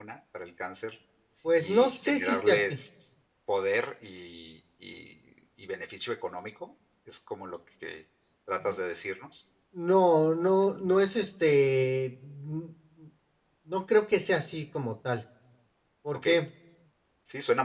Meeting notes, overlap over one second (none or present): present